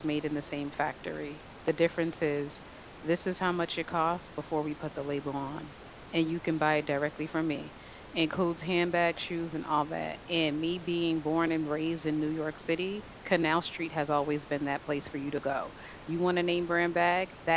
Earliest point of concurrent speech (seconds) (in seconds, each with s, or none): none